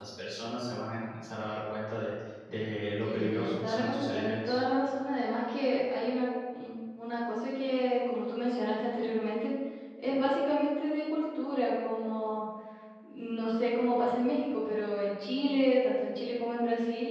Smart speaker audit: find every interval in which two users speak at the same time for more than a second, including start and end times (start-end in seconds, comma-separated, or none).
3.0-4.6